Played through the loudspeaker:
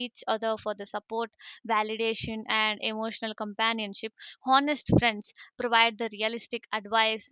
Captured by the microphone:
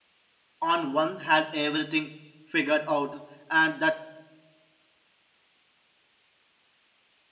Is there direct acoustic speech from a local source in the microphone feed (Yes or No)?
Yes